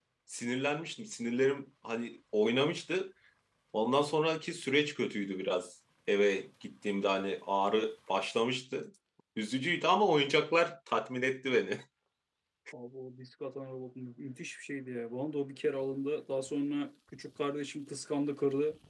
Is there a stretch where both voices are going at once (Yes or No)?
No